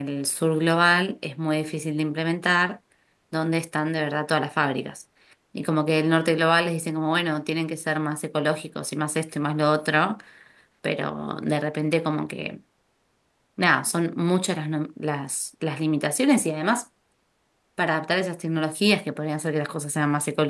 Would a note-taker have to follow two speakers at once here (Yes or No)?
No